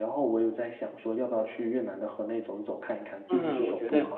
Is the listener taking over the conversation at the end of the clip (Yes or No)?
Yes